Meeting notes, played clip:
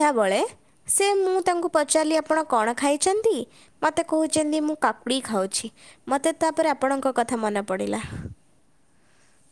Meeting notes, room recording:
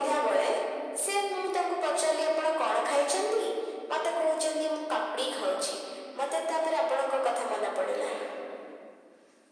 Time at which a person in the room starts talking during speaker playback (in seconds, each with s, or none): none